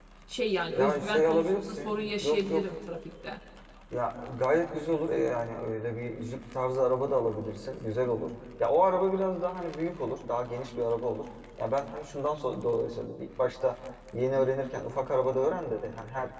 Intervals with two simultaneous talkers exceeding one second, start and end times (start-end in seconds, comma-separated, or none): 0.8-2.6